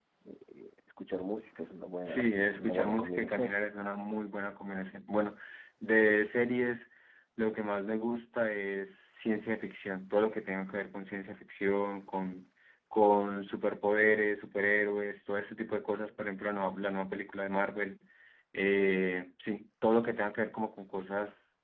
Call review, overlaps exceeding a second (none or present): present